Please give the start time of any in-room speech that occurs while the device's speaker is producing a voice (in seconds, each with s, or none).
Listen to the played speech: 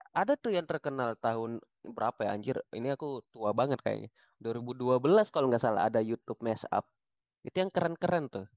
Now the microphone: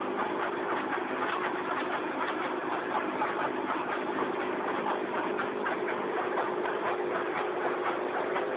none